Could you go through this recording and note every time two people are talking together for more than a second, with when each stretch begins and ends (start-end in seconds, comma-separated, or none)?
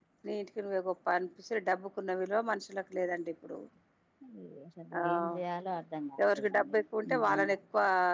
none